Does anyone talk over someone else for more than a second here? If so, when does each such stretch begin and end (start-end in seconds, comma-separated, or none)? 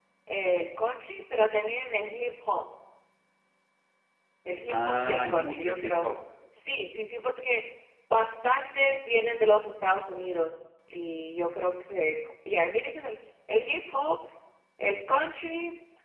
4.7-6.1